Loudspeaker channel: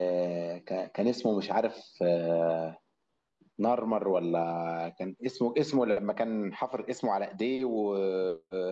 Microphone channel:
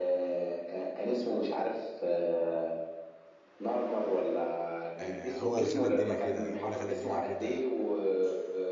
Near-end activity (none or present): present